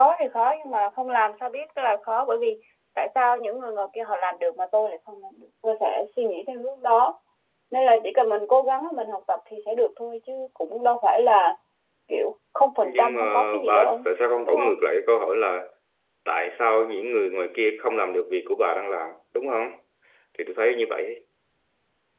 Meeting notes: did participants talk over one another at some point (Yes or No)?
Yes